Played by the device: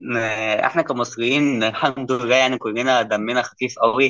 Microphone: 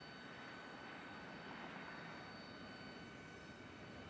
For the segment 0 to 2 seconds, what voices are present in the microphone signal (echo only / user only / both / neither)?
neither